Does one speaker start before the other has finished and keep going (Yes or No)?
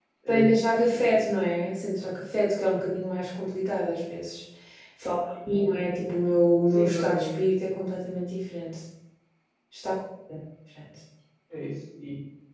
Yes